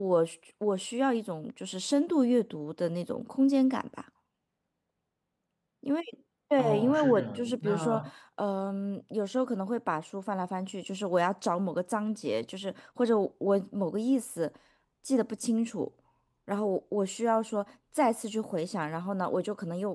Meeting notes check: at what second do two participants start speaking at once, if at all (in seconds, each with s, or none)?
6.6 s